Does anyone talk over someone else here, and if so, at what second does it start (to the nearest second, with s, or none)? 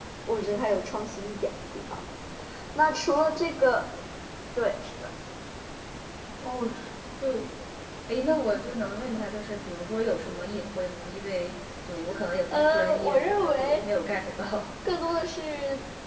13 s